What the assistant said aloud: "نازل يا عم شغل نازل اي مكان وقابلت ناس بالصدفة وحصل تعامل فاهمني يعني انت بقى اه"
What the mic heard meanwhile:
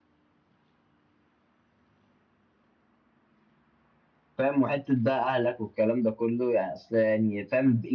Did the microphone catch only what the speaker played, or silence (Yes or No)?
No